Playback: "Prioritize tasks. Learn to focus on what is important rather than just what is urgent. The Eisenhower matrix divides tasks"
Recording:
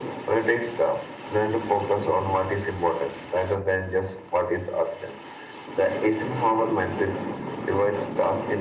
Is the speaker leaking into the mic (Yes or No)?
Yes